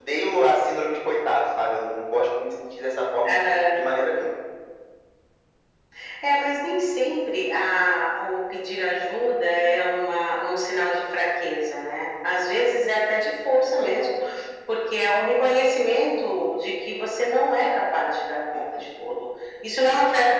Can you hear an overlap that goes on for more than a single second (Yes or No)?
No